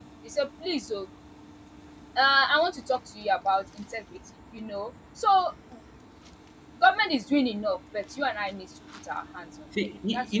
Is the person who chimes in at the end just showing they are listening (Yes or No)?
No